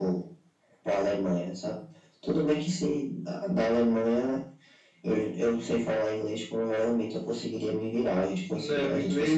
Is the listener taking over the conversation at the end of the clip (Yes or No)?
Yes